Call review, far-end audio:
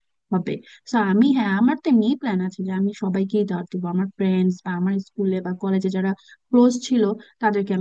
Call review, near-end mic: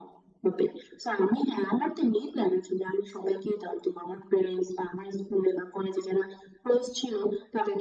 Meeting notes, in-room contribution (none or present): none